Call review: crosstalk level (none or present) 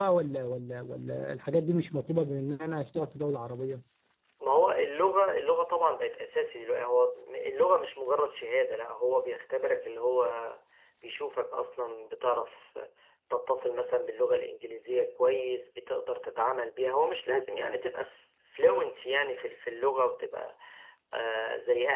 none